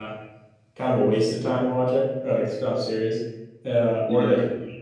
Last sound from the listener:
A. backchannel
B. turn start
A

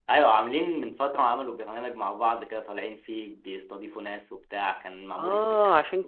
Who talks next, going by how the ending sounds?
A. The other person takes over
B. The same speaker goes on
A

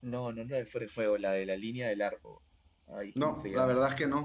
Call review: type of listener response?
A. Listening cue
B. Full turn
B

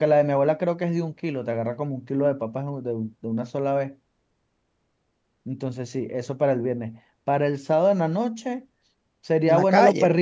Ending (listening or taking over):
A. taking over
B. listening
B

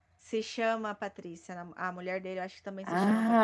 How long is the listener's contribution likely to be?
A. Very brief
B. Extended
B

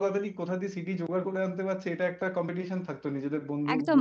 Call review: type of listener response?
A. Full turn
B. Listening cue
A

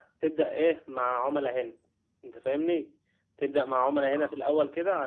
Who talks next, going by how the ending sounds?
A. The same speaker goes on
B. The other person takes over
A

